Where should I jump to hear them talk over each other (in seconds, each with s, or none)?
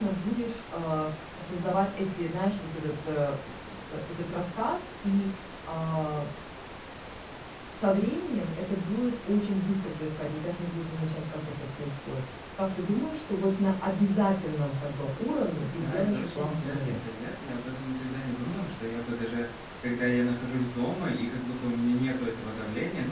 15.8 s